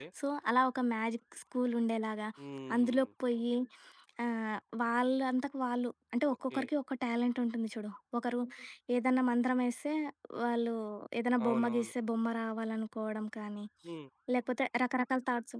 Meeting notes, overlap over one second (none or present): none